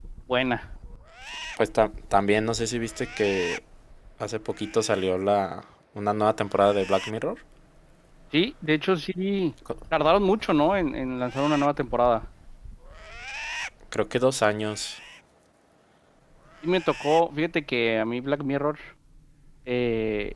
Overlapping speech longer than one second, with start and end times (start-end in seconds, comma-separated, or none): none